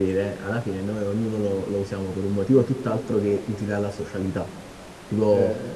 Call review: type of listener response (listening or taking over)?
listening